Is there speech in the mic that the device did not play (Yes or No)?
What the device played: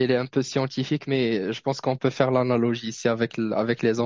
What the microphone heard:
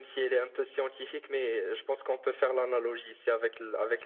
No